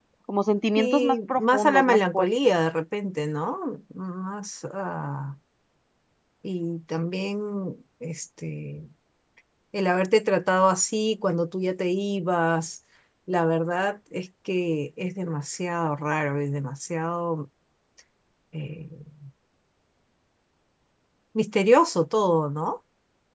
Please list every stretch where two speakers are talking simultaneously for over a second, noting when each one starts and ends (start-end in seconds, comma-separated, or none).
0.8-2.5